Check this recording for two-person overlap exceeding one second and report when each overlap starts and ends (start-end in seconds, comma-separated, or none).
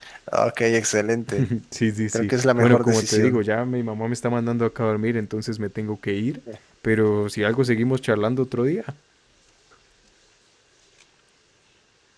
2.1-3.4